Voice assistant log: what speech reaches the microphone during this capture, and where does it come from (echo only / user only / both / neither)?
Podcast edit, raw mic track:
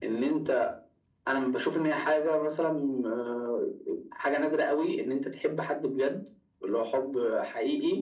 echo only